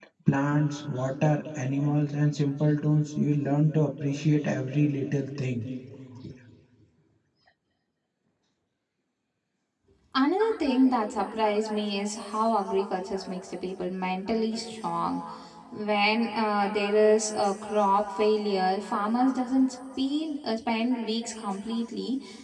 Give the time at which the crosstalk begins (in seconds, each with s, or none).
none